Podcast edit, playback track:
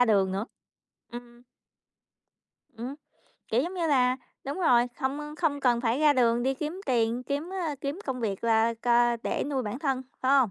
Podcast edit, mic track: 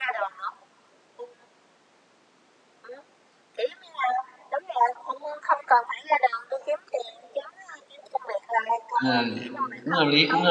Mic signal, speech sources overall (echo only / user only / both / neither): both